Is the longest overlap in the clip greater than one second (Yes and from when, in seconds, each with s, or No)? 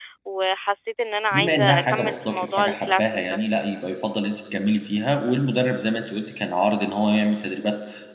Yes, from 1.3 s